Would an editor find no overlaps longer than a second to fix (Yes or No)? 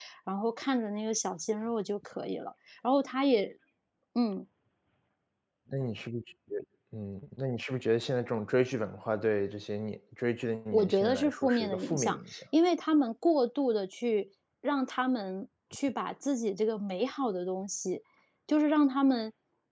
No